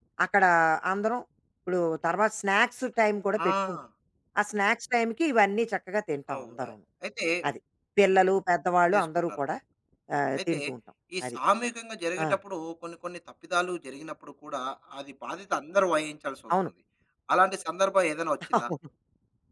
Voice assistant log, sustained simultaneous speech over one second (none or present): none